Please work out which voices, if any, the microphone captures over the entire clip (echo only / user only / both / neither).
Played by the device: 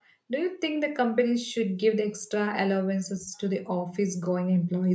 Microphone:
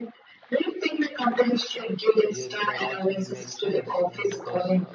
both